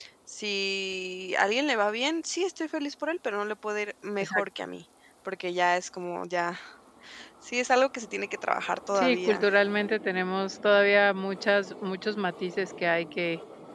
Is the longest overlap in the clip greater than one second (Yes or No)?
No